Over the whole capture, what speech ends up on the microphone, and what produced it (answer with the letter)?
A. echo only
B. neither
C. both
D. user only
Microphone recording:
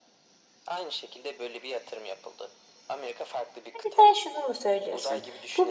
C